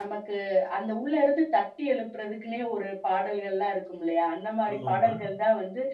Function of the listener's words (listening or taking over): listening